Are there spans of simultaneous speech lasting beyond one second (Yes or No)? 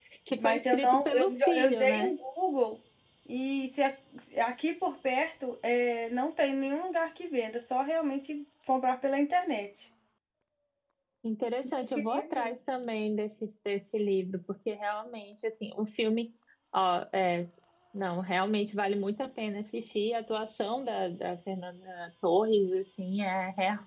Yes